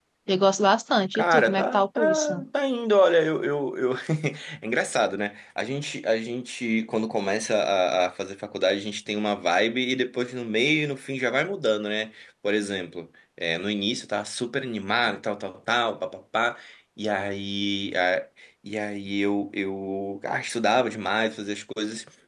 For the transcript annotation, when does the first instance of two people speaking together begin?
1.1 s

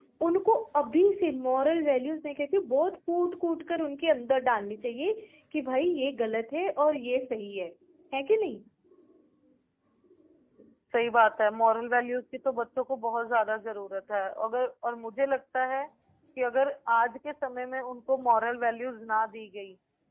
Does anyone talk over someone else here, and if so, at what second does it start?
none

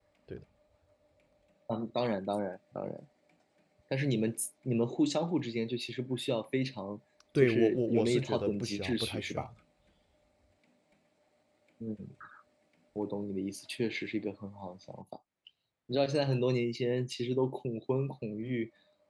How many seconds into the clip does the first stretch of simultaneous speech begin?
7.3 s

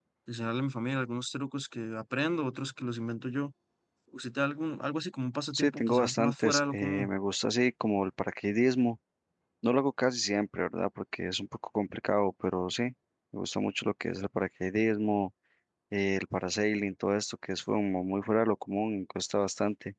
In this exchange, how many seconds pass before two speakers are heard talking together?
5.5 s

